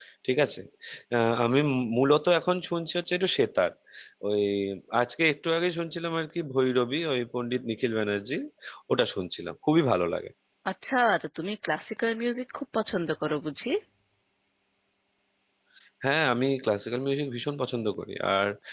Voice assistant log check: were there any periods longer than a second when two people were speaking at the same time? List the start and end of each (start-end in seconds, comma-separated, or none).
none